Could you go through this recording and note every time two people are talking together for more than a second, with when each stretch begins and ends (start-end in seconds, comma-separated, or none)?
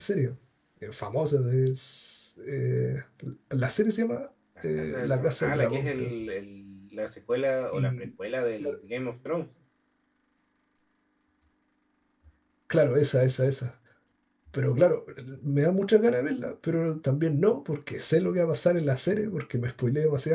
4.8-6.1